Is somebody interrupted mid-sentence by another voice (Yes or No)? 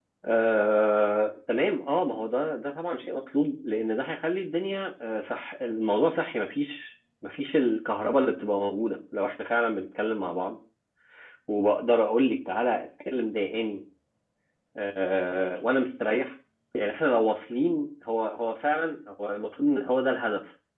No